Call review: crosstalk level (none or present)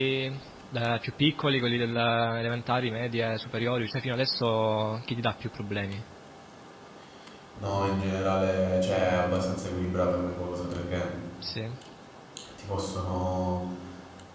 none